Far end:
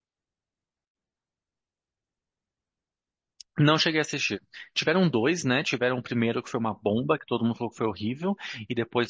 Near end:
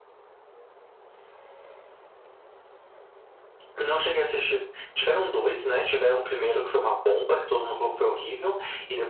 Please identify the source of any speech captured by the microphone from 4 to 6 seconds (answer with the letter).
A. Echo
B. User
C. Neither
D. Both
A